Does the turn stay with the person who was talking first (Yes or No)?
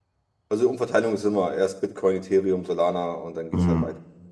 No